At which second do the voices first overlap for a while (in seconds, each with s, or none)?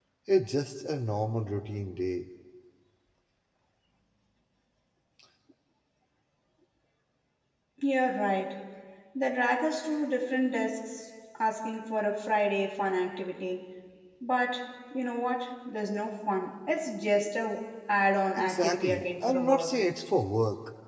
18.4 s